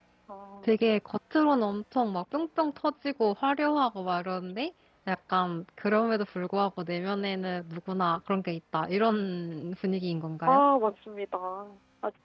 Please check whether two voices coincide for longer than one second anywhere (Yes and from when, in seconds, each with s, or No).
No